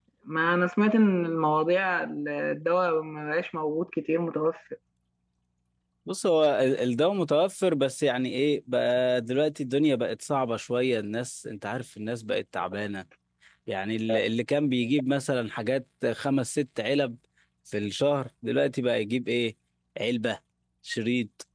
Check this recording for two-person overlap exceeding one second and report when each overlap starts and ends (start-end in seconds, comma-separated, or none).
none